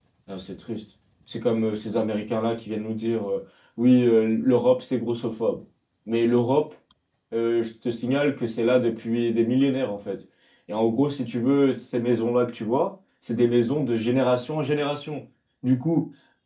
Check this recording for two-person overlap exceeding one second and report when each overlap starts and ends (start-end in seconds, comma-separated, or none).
none